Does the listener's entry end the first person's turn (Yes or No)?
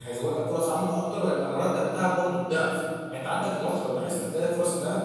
No